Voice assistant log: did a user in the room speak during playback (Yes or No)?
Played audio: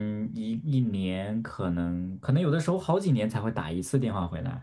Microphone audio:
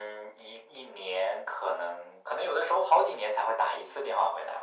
No